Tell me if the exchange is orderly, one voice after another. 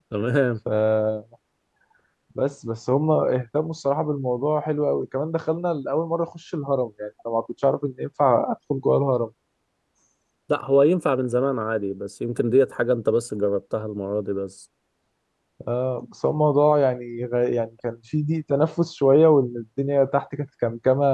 Yes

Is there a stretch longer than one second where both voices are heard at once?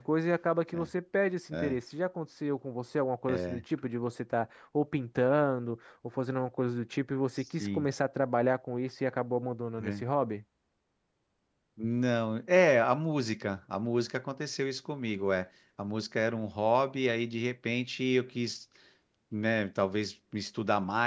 No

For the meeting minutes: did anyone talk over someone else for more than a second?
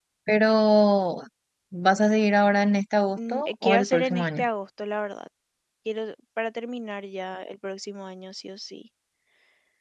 Yes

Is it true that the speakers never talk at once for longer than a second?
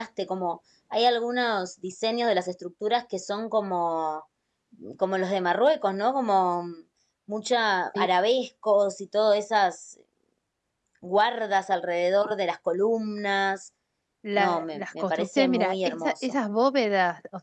No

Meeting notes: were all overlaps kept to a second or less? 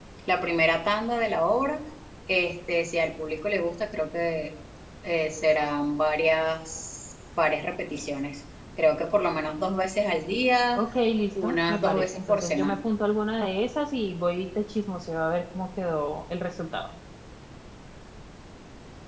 No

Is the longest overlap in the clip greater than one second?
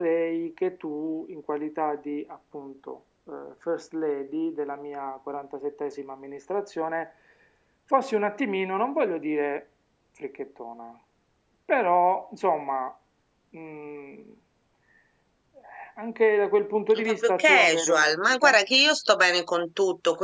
Yes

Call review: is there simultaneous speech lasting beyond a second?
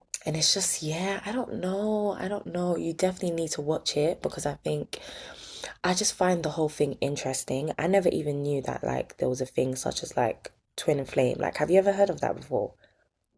No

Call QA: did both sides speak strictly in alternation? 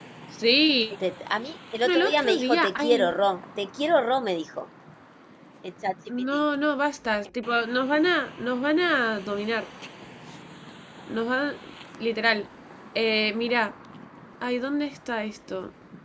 No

